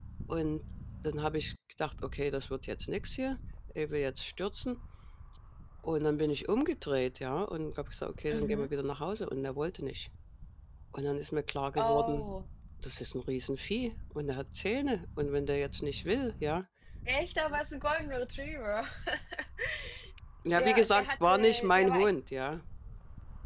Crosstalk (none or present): present